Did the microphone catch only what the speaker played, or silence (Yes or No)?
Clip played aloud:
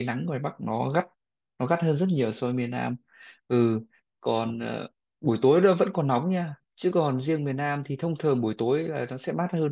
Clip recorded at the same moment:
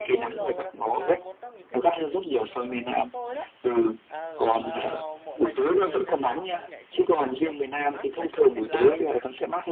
No